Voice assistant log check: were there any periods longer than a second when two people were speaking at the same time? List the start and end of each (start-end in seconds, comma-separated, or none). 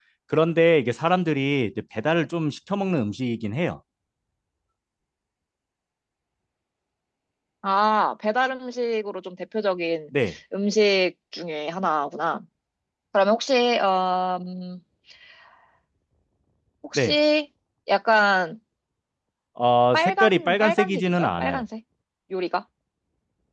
19.9-21.6